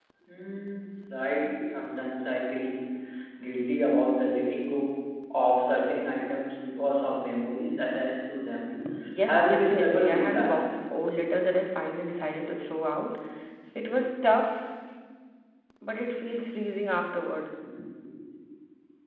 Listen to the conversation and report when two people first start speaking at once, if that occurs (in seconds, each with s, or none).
9.2 s